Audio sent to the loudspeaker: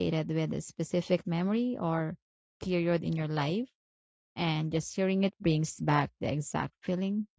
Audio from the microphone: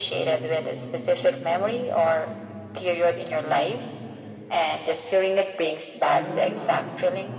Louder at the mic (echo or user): echo